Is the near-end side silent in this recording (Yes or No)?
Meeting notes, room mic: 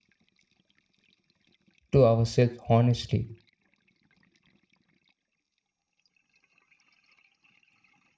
No